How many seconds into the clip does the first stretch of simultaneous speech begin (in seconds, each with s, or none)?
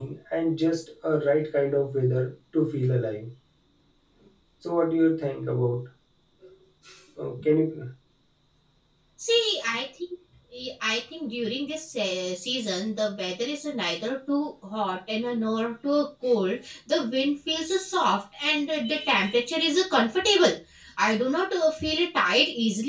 none